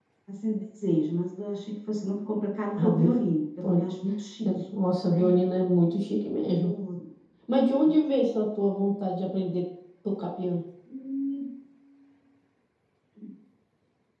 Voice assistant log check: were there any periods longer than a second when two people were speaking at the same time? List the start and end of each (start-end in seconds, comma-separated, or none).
none